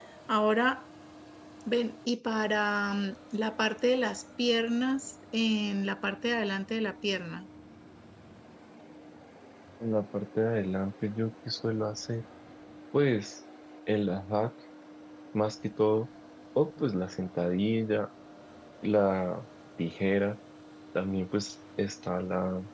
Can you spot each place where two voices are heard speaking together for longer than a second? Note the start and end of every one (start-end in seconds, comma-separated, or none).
none